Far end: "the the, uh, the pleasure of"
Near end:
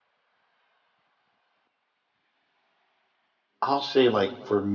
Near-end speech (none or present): present